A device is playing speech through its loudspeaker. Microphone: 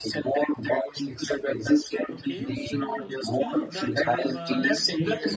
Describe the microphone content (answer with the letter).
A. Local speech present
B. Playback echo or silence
A